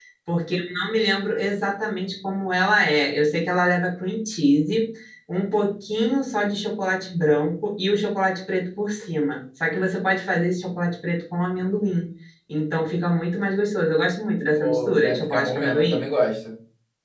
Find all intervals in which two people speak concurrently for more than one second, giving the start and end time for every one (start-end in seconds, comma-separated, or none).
14.6-16.1